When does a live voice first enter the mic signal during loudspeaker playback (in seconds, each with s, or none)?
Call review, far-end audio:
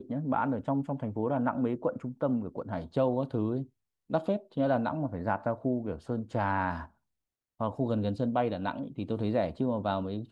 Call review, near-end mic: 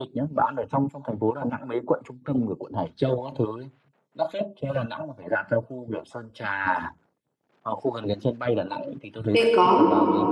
9.3 s